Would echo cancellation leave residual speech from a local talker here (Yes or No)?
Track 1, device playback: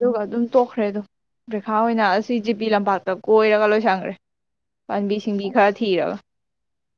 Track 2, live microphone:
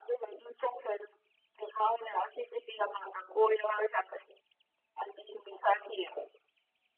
No